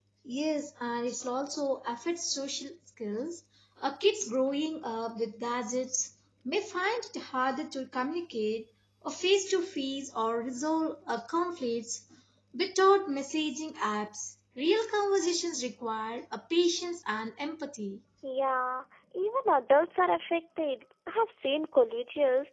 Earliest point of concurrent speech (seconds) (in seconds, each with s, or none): none